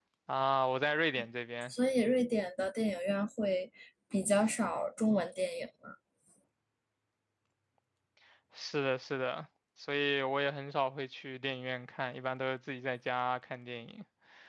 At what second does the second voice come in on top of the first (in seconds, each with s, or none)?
none